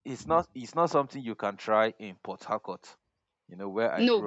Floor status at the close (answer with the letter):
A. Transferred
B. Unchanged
B